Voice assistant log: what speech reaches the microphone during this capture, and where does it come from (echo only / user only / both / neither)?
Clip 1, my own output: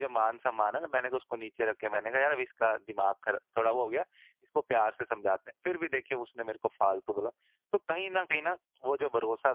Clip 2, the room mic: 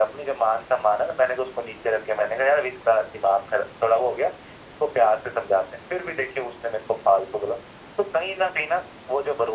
echo only